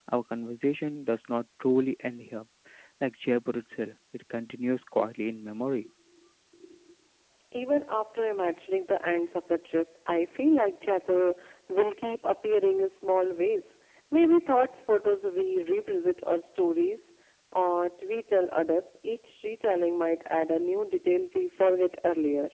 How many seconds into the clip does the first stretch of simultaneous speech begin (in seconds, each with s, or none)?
none